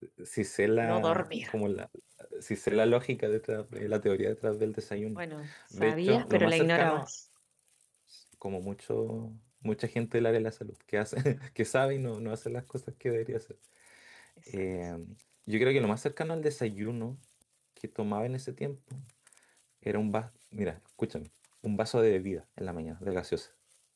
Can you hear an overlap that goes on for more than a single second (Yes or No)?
Yes